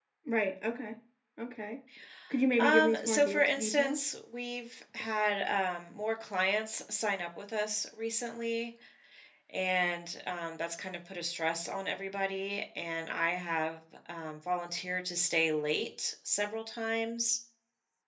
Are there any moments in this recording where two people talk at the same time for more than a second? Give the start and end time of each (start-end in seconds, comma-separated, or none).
2.6-4.0